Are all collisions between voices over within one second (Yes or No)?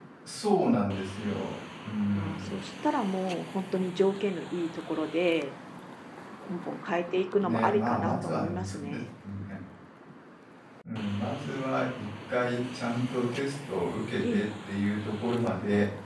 No